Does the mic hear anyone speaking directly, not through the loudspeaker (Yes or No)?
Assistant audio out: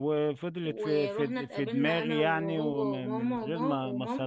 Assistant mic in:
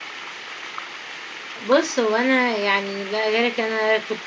Yes